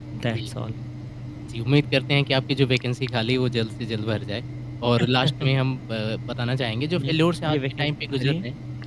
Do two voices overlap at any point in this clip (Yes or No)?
Yes